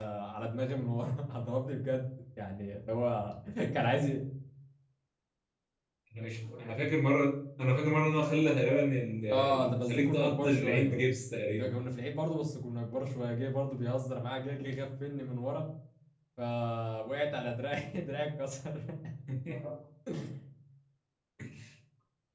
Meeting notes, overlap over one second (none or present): present